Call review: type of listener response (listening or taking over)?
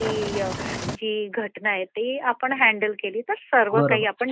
taking over